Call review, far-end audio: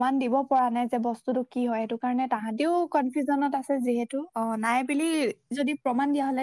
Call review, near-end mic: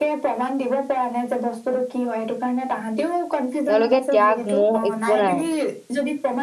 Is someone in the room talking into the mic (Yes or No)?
Yes